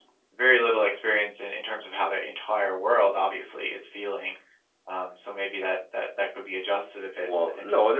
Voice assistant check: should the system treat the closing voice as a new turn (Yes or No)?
Yes